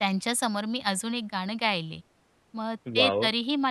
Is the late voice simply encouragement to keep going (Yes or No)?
Yes